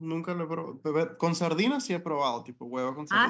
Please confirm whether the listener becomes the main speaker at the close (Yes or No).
Yes